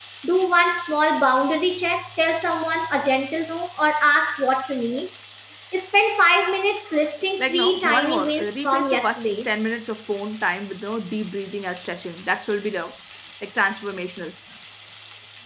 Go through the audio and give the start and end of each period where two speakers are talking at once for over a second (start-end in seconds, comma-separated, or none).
7.4-9.5